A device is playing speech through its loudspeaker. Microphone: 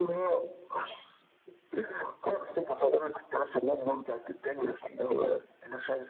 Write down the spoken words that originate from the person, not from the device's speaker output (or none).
none